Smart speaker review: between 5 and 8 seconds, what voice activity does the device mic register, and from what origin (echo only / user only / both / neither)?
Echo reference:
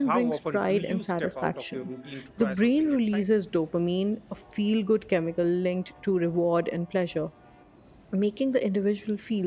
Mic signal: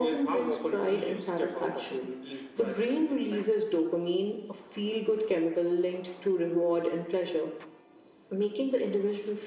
echo only